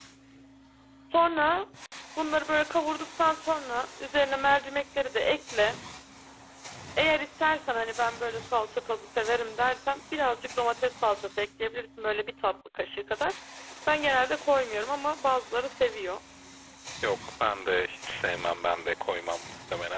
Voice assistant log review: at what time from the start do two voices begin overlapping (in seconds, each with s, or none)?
none